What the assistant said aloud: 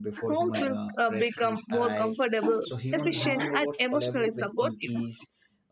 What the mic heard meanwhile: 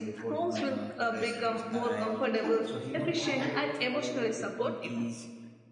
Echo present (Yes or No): Yes